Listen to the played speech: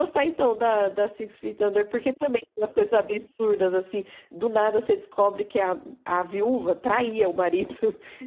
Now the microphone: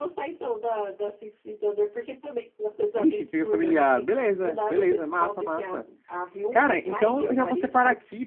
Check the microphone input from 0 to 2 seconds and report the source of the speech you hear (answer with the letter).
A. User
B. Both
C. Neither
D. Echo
D